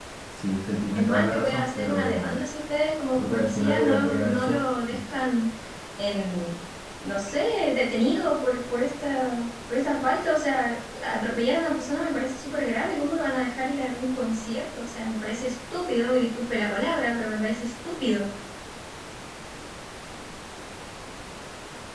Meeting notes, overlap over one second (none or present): present